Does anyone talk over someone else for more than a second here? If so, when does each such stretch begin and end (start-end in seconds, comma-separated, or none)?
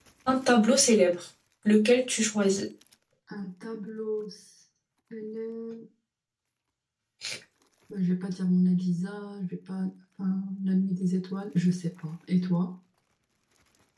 none